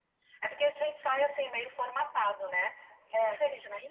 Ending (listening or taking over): listening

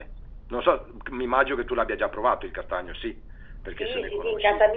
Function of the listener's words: taking over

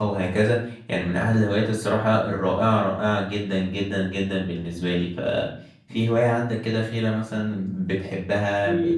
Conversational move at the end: taking over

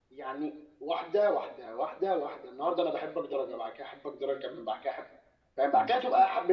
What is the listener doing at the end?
listening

